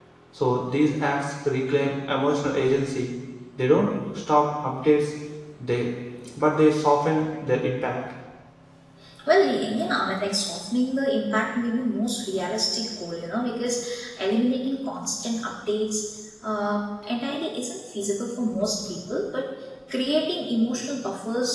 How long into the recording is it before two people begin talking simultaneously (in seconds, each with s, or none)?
none